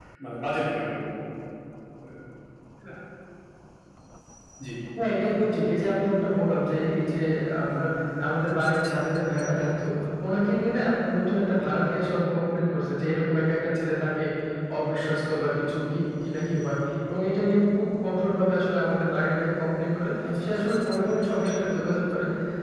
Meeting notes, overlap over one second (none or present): none